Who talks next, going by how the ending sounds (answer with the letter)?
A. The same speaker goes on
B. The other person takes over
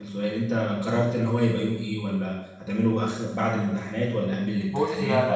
B